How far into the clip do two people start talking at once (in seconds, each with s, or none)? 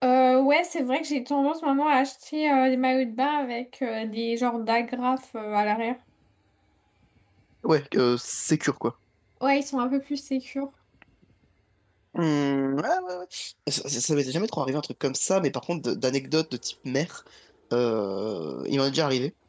none